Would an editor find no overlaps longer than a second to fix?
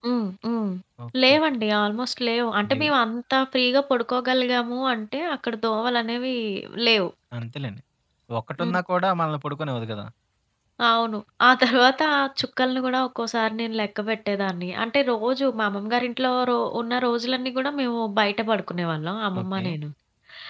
Yes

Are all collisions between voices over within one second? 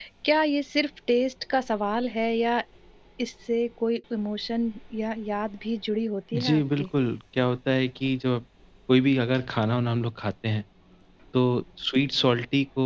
Yes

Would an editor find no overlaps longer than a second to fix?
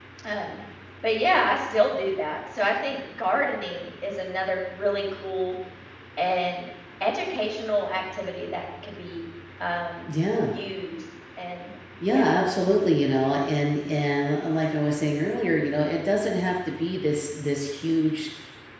Yes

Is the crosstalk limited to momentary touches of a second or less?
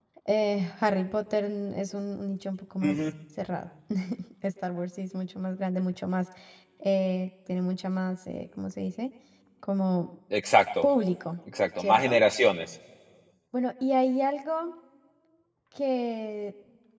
Yes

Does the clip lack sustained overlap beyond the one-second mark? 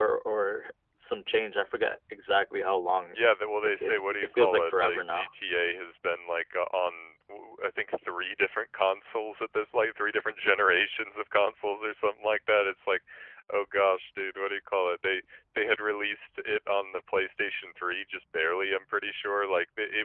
No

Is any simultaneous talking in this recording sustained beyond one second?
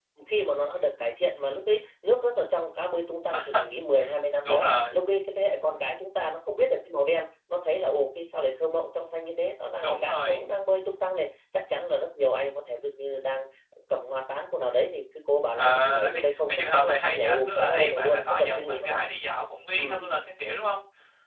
Yes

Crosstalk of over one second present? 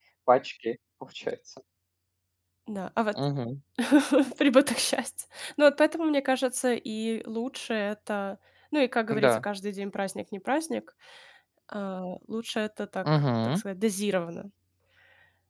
No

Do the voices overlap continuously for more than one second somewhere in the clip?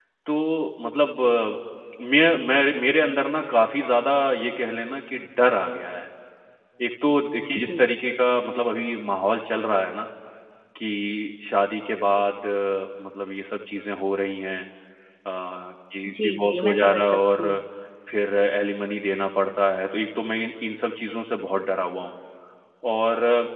Yes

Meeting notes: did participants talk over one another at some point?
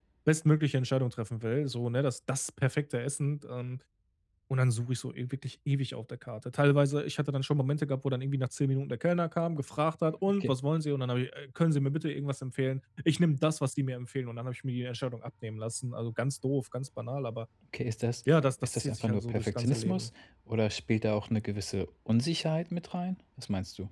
Yes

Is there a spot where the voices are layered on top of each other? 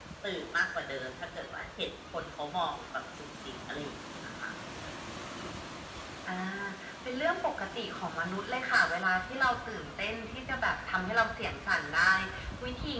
No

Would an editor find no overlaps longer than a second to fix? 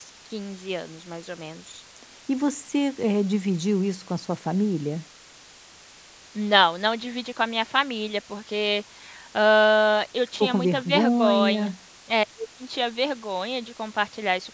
No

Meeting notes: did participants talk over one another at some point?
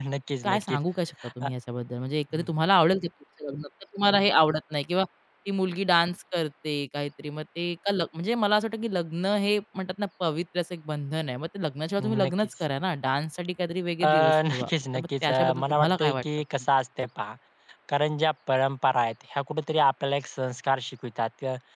Yes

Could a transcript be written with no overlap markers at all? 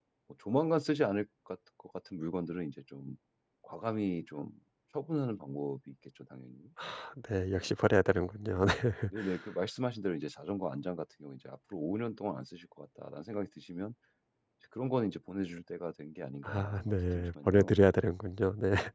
No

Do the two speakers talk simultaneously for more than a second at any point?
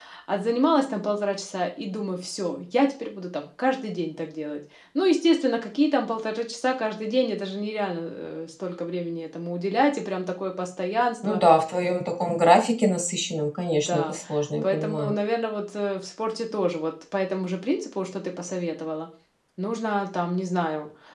No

